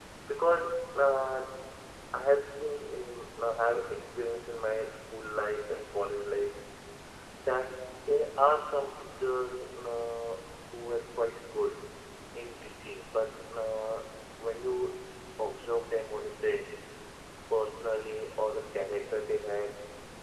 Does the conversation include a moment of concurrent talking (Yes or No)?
No